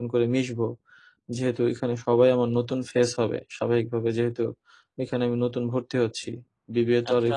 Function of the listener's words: listening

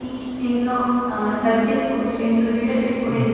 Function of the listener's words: taking over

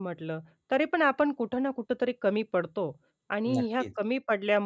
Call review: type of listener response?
listening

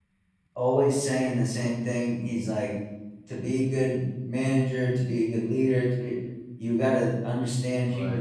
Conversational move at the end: listening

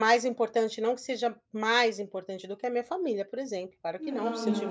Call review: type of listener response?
listening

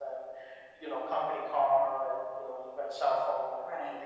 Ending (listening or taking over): taking over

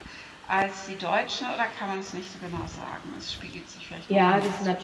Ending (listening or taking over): taking over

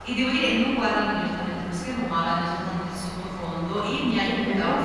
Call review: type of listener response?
listening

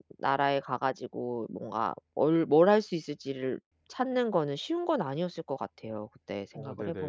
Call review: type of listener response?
listening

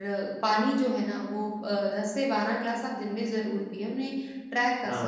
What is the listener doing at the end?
listening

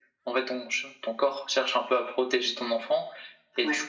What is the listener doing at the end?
listening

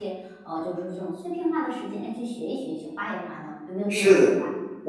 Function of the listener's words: taking over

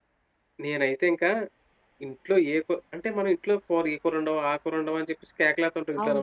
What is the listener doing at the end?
taking over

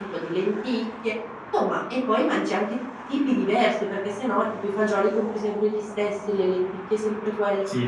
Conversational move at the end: taking over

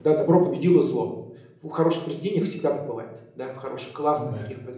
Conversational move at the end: listening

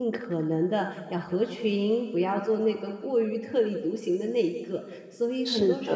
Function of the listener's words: taking over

